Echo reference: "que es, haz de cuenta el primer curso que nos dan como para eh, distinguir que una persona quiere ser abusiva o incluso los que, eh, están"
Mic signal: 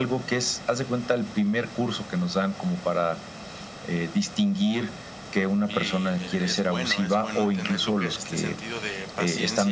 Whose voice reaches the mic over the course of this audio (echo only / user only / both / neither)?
both